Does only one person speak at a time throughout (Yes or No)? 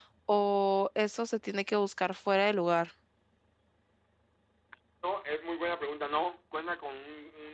Yes